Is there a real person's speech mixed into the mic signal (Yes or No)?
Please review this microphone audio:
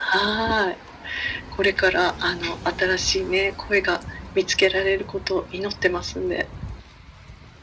No